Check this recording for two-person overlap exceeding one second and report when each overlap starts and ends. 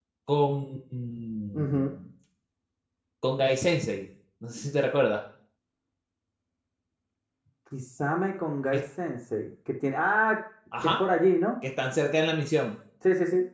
none

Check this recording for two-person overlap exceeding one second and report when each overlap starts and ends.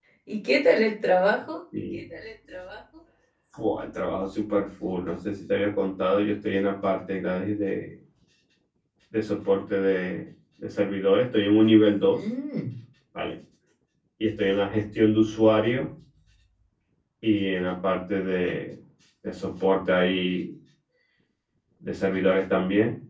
none

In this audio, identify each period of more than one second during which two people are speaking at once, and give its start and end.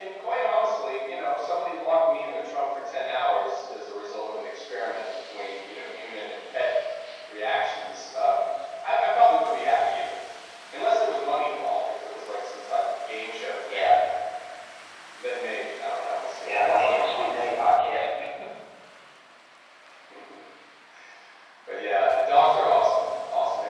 16.4-17.7

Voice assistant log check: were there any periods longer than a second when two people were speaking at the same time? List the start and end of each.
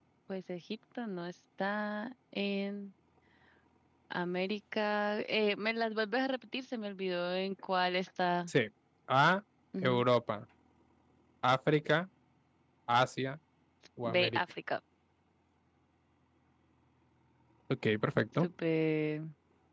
none

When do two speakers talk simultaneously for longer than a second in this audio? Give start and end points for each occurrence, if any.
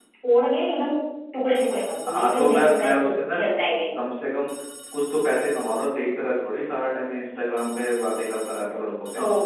2.1-3.4

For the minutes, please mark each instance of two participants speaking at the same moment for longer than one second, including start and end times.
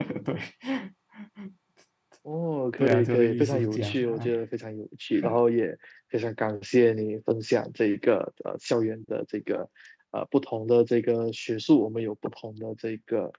2.8-4.4

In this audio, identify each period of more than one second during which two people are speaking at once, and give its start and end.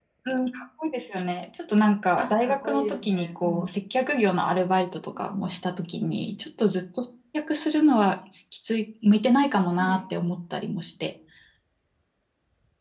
2.2-3.7

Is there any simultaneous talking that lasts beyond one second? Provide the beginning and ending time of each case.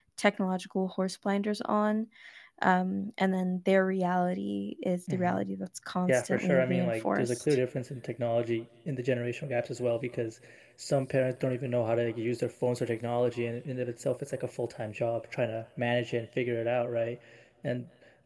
6.1-7.6

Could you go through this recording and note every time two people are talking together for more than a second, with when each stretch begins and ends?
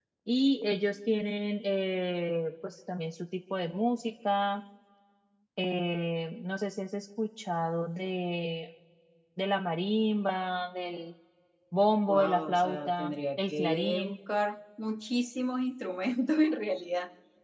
12.1-14.2

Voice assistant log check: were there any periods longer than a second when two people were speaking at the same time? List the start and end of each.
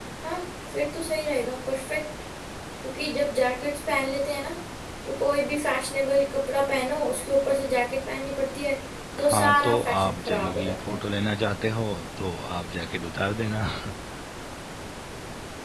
9.2-10.9

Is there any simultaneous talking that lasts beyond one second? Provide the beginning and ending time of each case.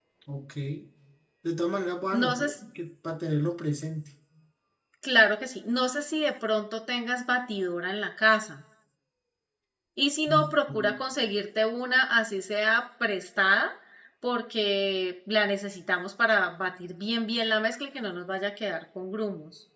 none

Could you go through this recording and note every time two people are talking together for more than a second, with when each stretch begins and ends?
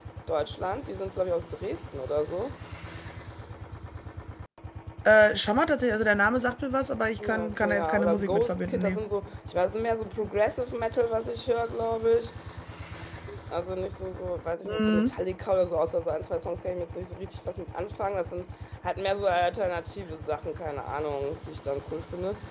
7.2-9.0

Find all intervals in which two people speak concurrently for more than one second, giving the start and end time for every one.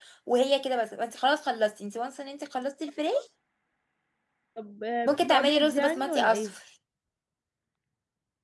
5.1-6.5

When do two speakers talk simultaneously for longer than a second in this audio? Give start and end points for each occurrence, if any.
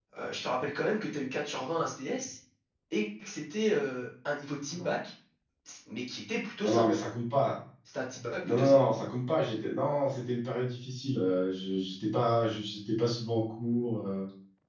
none

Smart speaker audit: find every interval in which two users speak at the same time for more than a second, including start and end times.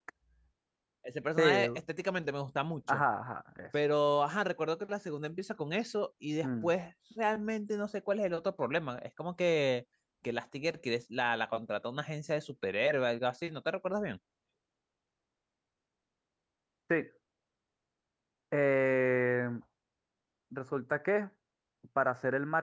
none

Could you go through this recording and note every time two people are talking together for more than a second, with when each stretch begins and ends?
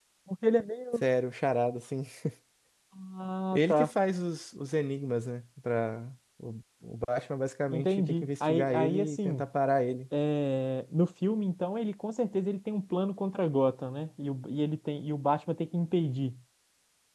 7.7-9.4

